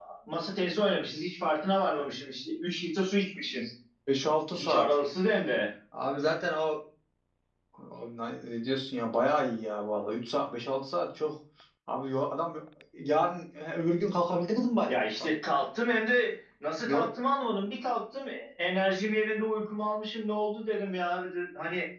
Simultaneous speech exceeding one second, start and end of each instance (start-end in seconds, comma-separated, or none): none